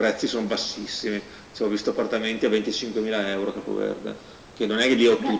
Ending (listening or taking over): listening